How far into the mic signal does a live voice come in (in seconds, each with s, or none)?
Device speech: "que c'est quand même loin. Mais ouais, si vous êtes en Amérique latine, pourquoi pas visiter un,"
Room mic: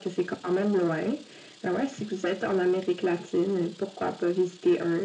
none